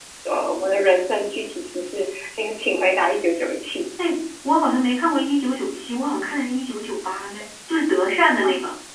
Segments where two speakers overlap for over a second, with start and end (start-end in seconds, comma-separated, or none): none